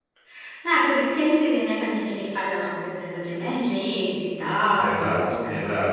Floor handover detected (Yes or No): Yes